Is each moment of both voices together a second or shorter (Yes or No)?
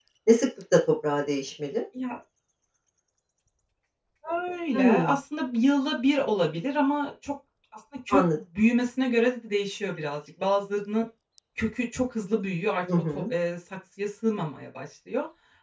Yes